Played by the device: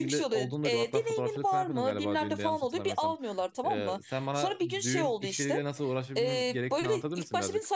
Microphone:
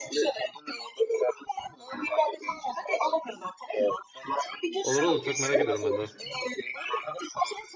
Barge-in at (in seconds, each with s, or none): 4.8 s